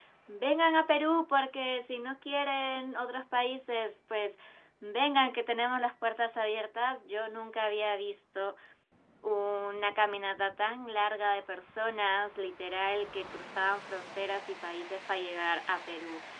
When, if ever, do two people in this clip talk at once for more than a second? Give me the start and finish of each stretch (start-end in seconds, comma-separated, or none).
none